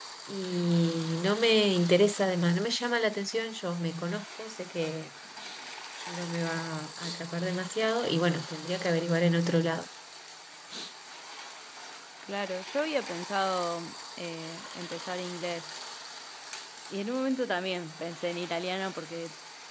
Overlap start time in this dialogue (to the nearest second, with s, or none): none